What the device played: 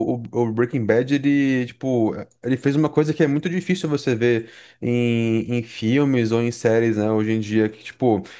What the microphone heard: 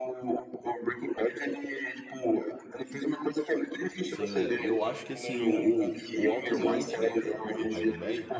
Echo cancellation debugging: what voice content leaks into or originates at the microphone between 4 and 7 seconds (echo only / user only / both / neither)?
both